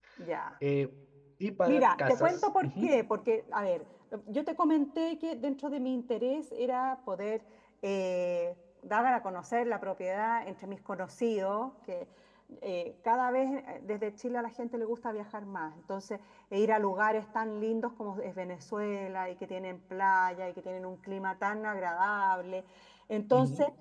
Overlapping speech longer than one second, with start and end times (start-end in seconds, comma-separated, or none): 1.7-2.9